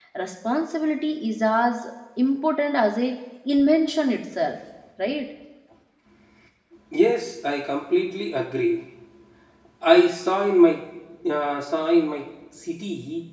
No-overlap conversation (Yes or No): Yes